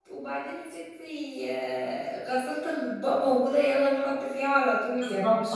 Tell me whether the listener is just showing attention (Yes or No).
No